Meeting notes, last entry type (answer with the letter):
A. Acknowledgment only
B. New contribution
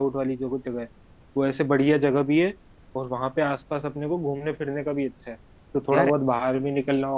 A